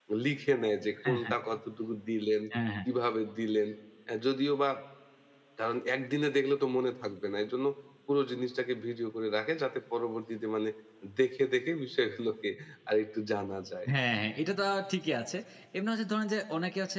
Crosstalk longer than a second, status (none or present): none